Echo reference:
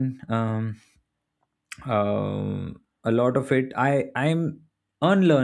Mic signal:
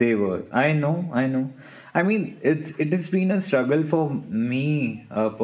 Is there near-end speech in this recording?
Yes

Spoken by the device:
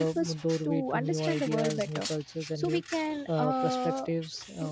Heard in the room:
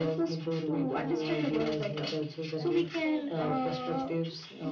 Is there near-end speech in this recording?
Yes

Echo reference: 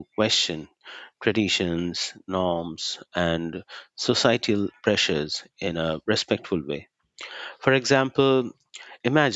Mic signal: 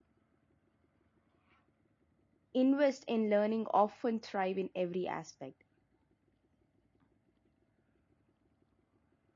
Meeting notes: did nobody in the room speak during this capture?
No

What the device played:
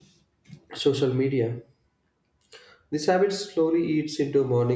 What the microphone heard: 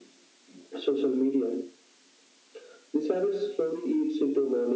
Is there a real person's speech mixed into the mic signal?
No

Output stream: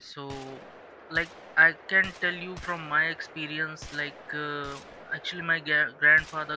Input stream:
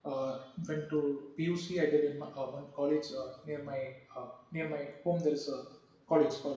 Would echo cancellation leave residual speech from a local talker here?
Yes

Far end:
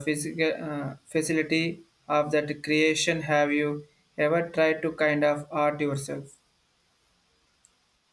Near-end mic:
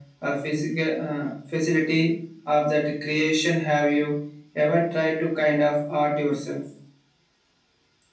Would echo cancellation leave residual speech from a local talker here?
No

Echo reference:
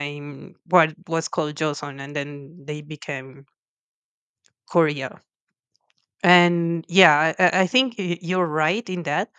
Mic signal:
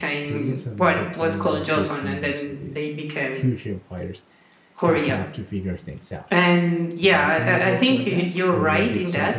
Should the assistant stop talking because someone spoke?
Yes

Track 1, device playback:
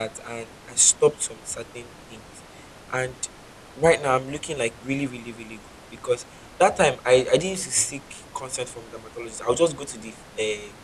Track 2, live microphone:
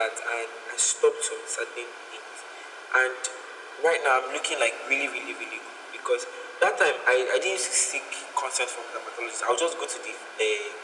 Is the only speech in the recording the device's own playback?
Yes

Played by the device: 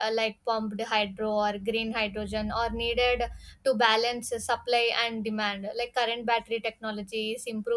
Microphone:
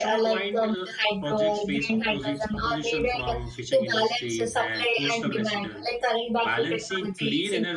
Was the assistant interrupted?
Yes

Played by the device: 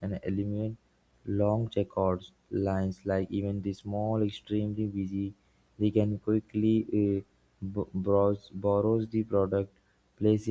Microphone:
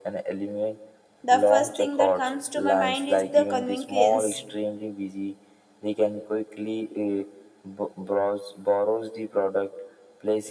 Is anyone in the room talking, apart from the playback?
Yes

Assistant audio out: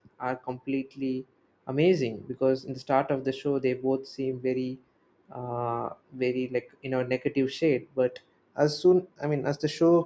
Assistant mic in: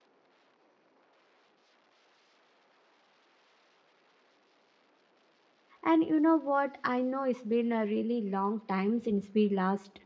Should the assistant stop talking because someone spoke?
Yes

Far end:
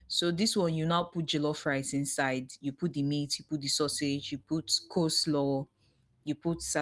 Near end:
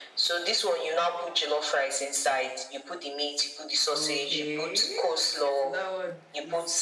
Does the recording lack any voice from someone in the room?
No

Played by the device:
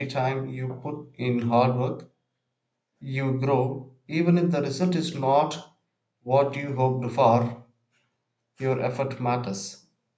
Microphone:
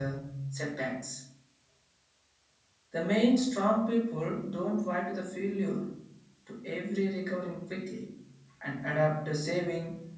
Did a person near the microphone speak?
Yes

